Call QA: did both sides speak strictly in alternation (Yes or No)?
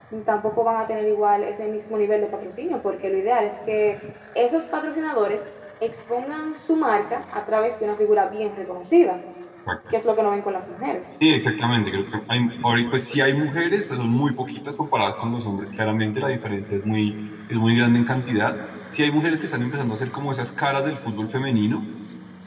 Yes